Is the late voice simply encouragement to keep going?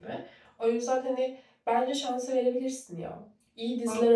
Yes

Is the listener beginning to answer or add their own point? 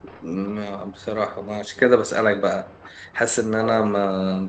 No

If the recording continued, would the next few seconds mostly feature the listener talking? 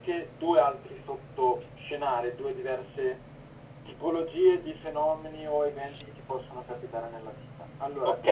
No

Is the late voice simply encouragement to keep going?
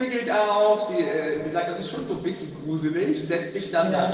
Yes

